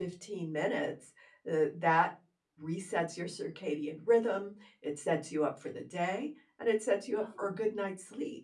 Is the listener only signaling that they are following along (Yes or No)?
Yes